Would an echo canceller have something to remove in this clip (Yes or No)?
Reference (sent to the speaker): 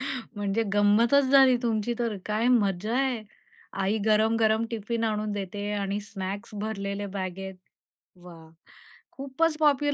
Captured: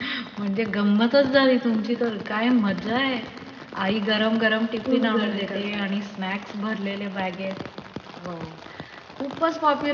Yes